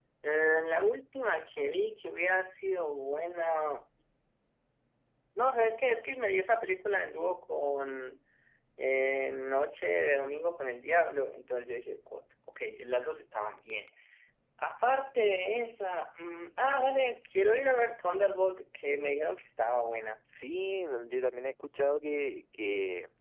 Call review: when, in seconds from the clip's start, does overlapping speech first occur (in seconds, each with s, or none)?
none